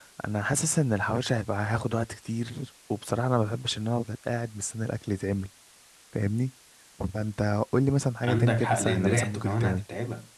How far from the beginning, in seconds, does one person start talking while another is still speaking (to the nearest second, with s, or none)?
8 s